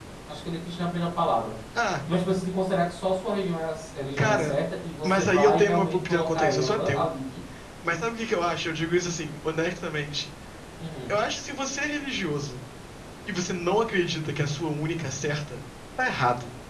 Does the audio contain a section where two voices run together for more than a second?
Yes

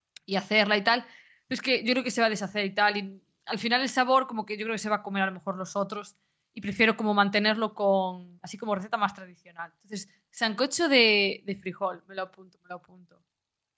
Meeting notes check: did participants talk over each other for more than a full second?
No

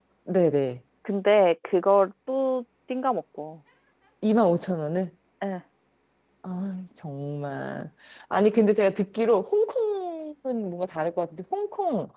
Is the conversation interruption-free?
Yes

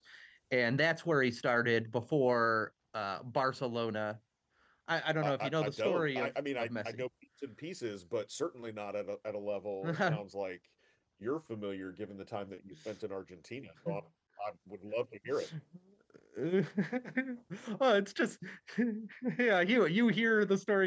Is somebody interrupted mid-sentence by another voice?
Yes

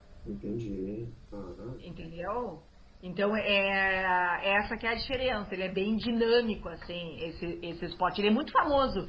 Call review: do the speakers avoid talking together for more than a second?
Yes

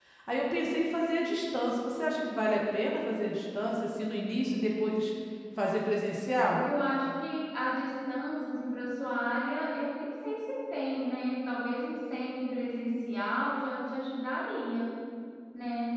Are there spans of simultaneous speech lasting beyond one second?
No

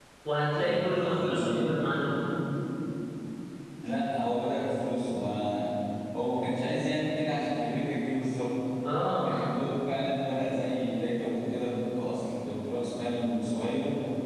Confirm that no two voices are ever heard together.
No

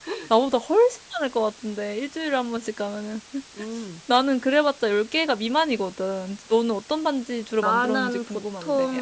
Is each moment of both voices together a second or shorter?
No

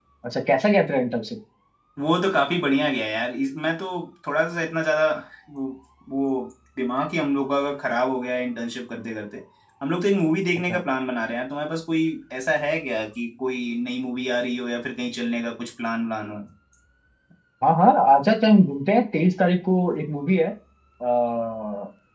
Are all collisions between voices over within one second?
Yes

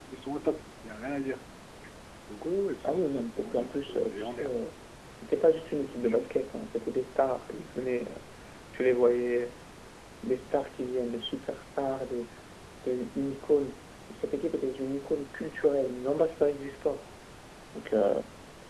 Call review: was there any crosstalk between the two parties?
Yes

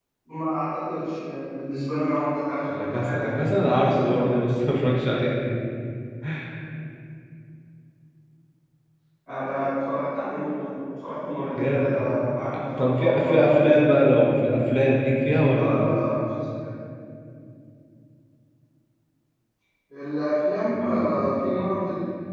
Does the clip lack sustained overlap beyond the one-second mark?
No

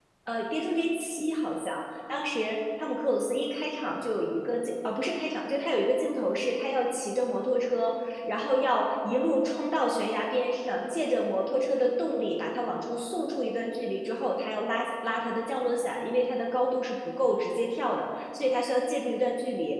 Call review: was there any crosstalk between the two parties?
No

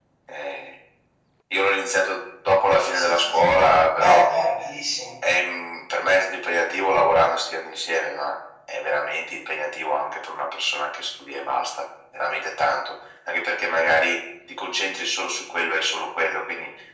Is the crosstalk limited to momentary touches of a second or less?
No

